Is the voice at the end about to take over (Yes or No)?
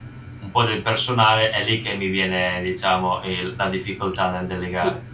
Yes